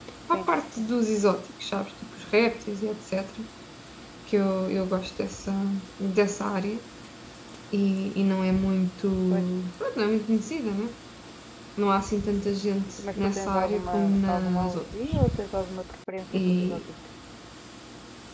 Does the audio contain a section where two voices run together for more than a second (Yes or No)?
Yes